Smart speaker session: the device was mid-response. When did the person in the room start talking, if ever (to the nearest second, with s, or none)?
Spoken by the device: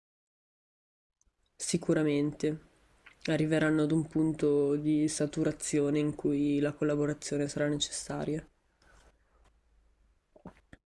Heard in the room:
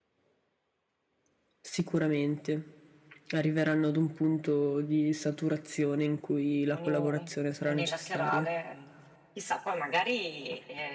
7 s